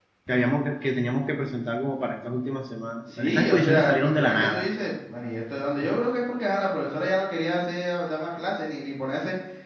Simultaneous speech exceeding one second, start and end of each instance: 3.2-4.6

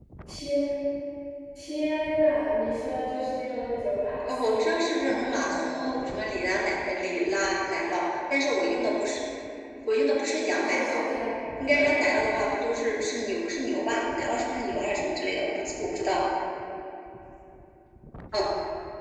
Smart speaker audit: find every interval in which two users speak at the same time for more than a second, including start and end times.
4.3-5.9

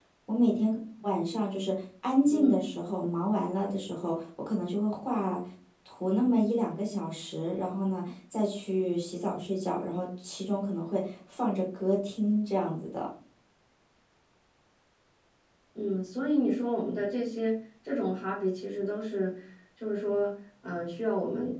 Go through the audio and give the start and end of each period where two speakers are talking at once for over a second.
none

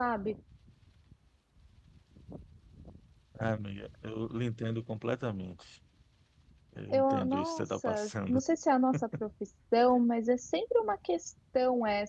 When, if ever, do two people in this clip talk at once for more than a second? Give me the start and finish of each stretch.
6.9-8.4

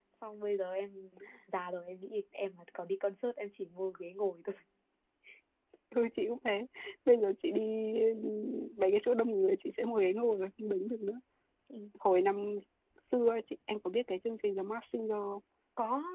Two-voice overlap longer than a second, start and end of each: none

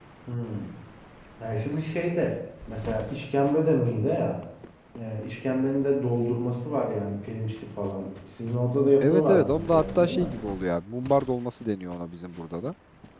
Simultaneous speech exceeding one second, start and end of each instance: 9.0-10.3

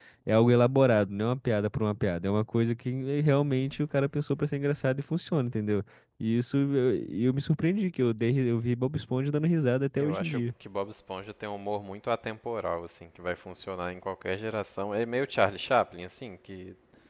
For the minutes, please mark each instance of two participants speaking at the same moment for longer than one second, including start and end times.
none

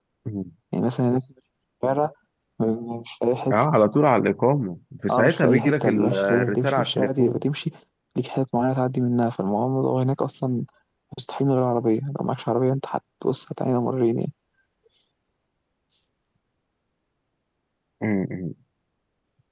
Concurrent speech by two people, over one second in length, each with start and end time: 5.1-7.4

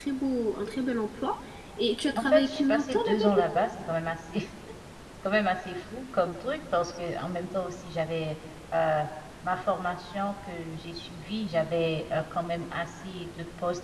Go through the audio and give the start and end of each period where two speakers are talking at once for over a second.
2.1-3.6

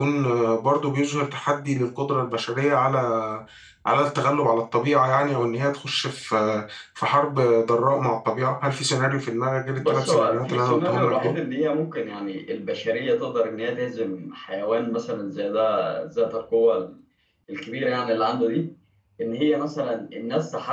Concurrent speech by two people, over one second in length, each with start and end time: 9.8-11.4

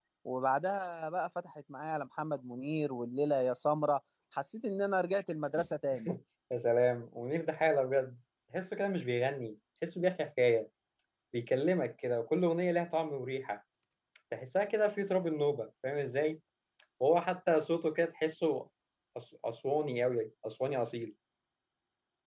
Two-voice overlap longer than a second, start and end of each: none

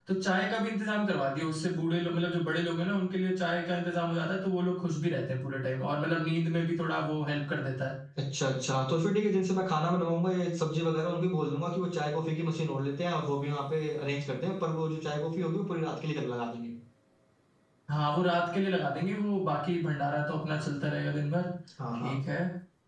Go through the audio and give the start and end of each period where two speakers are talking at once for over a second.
none

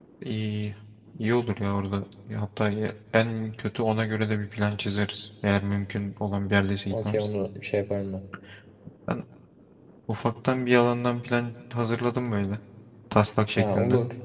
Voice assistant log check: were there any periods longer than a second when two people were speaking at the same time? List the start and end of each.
none

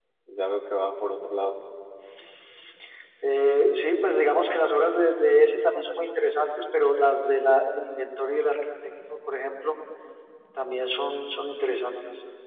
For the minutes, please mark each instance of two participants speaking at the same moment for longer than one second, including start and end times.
none

